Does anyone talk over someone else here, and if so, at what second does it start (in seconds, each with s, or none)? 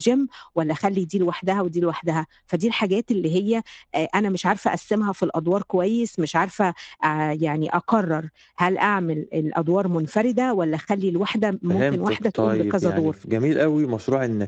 11.7 s